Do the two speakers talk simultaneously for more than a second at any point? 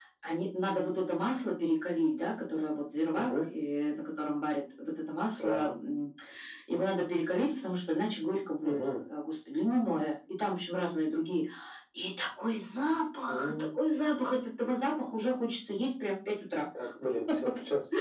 No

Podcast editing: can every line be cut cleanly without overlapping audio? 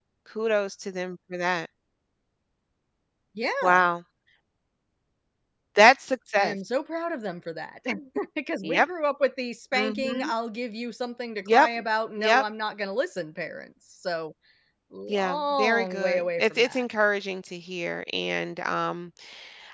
No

